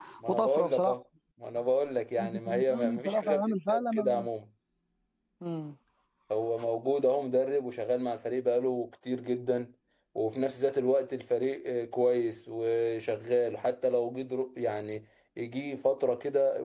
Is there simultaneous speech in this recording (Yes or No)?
Yes